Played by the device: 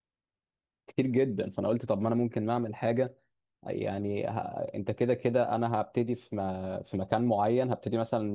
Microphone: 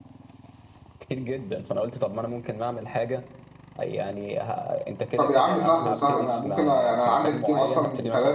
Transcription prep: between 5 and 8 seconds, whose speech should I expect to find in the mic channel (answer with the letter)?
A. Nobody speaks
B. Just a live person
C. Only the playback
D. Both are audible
D